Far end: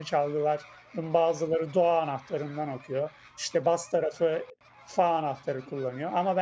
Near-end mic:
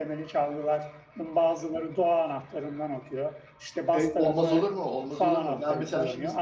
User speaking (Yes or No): Yes